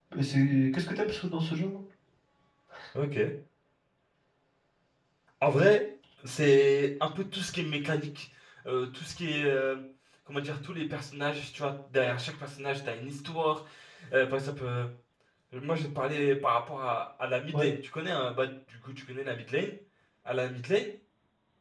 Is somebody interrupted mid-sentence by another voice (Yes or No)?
No